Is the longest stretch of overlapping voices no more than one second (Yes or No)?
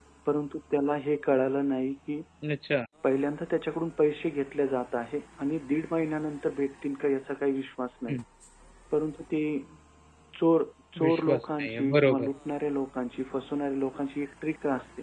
No